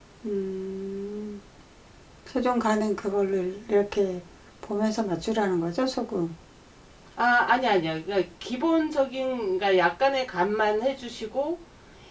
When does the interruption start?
none

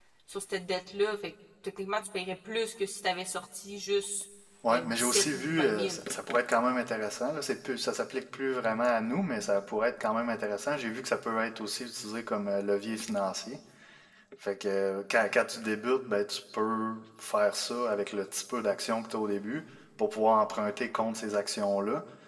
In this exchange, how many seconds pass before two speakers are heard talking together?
4.7 s

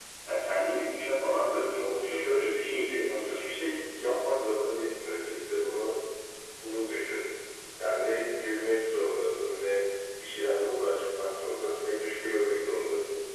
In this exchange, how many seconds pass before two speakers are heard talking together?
1.5 s

